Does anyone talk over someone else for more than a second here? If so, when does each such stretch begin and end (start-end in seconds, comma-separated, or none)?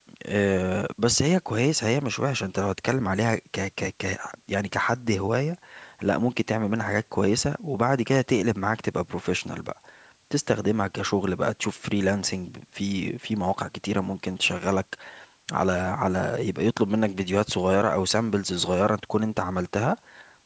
none